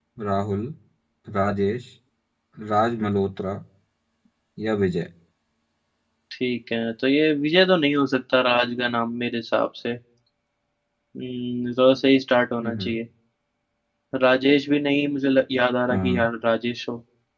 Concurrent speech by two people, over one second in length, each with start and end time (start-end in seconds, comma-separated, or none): none